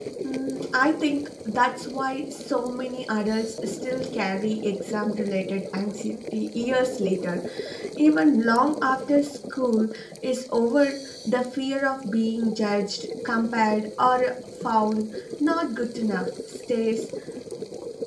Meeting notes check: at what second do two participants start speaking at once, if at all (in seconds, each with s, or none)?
none